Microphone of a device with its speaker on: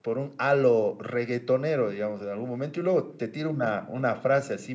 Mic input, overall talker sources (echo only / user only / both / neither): user only